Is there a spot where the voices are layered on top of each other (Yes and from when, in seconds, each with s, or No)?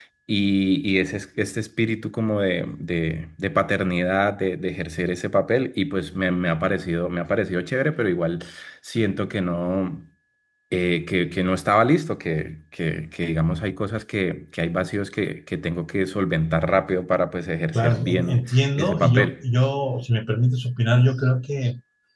Yes, from 17.7 s